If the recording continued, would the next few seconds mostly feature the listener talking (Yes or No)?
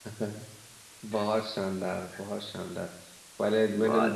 No